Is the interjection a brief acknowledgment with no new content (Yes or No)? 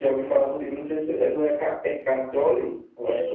No